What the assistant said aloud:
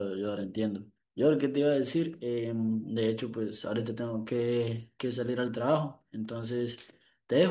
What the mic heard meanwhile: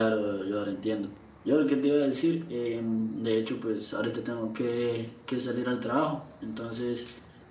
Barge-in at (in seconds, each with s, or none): none